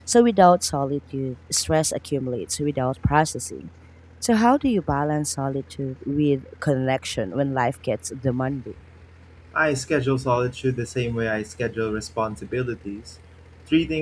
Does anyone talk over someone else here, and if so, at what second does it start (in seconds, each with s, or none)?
none